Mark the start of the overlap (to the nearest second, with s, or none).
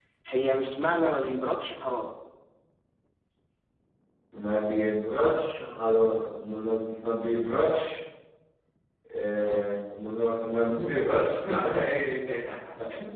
none